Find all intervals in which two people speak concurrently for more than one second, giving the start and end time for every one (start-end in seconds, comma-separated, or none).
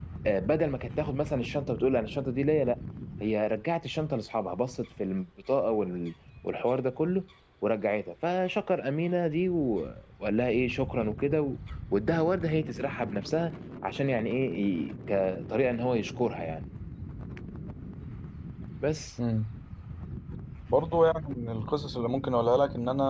none